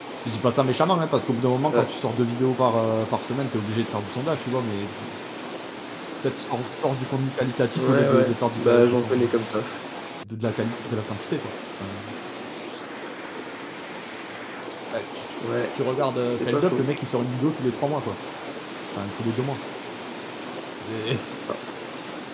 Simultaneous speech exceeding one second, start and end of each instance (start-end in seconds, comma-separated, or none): 7.8-9.3